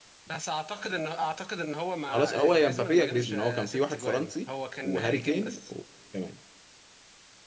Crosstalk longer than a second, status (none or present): present